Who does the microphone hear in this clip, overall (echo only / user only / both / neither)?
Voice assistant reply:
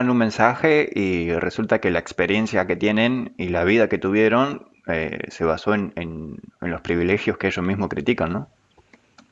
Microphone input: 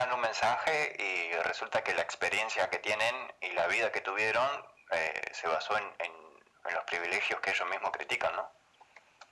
echo only